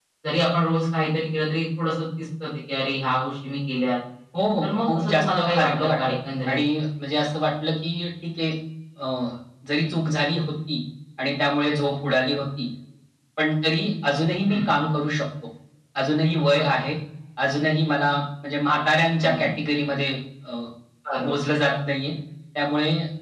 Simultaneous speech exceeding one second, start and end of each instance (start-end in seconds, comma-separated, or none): 4.6-5.9